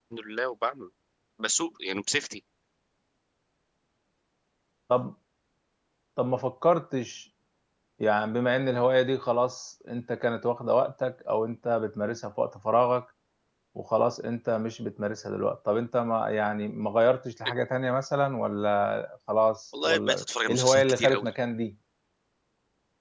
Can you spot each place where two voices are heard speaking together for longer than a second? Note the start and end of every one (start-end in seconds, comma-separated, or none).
19.8-21.3